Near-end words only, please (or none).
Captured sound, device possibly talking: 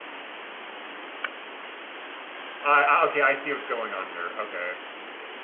I, I okay, I see what's going on here. Okay.